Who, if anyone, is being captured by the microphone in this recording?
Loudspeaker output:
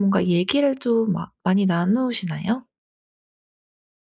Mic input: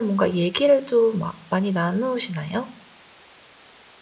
echo only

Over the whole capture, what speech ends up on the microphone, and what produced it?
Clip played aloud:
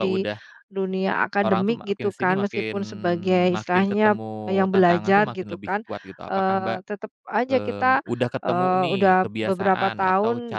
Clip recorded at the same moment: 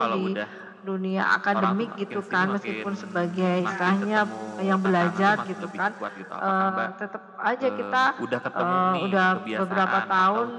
both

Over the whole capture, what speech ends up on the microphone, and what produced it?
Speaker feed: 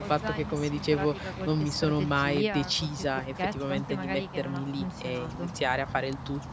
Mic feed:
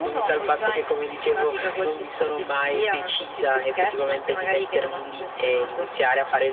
echo only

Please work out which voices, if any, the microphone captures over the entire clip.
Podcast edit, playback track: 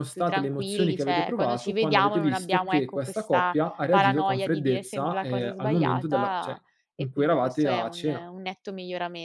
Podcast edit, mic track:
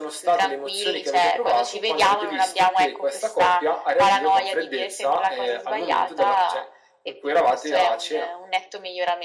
echo only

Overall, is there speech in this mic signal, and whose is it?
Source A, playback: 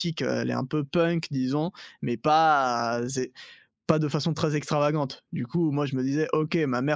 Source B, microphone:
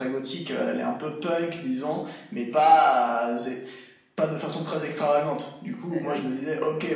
both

